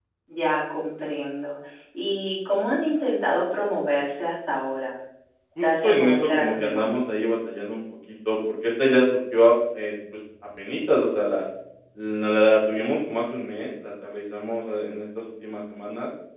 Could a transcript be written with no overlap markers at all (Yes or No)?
No